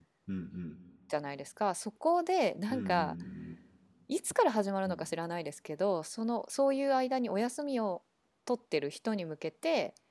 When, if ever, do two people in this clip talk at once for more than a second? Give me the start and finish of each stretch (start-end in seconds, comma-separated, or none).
none